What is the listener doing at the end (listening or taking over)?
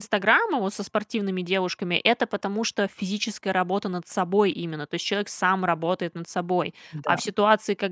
listening